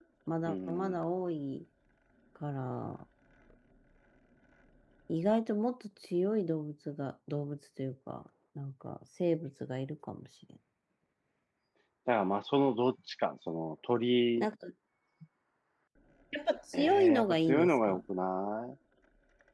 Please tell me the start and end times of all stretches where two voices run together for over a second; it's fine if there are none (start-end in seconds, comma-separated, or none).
16.7-18.0